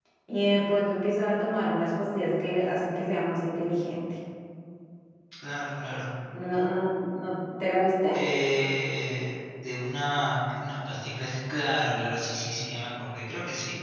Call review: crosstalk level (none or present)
none